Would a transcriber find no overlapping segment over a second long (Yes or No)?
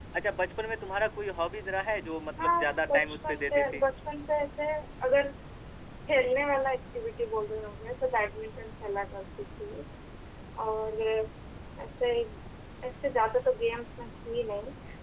No